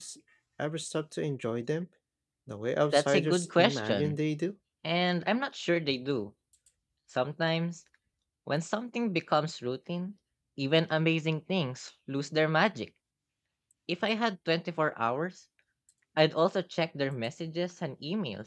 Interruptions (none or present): present